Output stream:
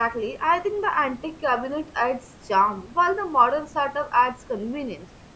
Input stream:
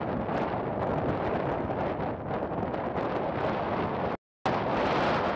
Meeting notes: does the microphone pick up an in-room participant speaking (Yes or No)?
No